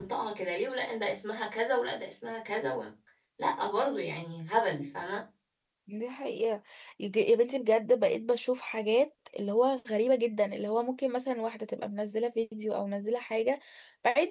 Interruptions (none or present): none